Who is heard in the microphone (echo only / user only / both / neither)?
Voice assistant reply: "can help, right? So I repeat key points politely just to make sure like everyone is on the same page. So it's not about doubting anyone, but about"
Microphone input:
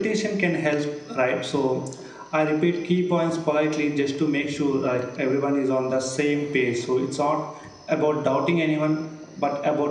echo only